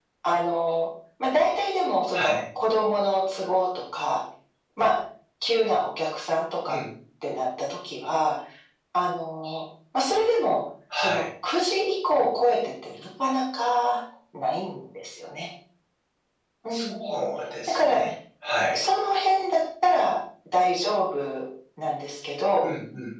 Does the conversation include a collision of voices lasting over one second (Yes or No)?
No